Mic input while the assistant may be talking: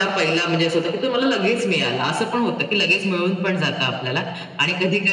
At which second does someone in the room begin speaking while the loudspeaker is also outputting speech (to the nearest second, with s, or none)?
none